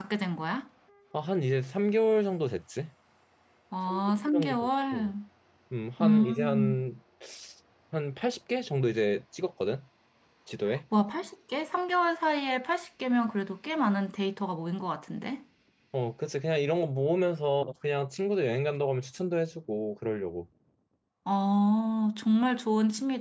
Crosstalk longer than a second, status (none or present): present